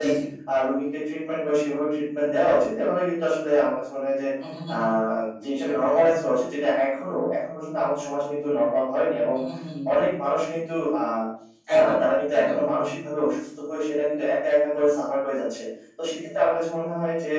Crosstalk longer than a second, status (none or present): none